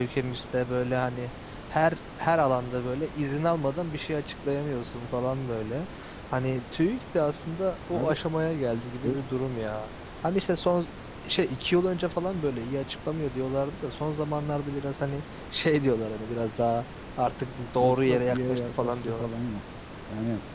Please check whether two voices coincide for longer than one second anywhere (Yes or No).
Yes